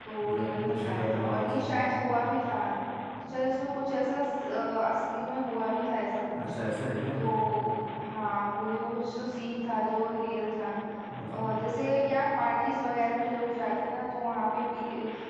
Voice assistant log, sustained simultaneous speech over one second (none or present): present